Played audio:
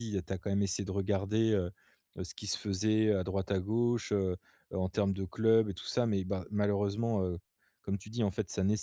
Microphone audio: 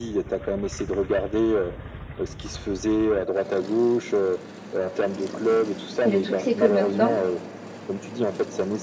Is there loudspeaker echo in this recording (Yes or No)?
Yes